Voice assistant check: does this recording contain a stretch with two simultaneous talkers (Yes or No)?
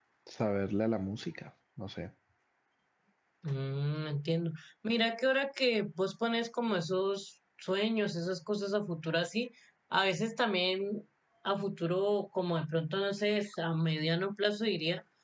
No